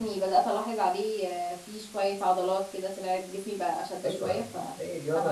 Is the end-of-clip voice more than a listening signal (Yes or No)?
Yes